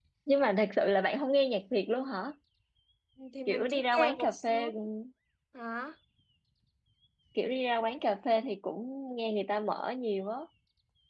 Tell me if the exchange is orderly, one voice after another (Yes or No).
No